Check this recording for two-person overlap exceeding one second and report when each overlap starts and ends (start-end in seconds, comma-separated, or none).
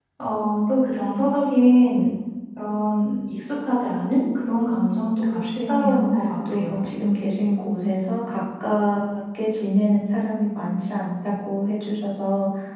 4.4-6.1